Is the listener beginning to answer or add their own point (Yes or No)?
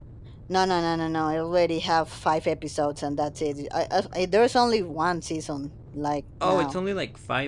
Yes